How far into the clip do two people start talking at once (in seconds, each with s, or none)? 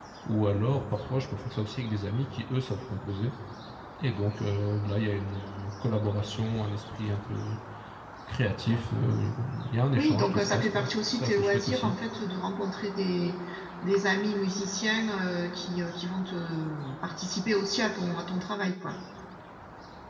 10.0 s